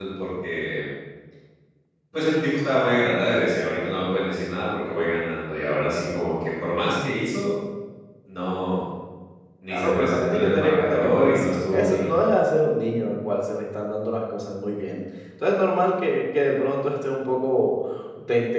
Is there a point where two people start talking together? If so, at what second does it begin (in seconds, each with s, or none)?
9.7 s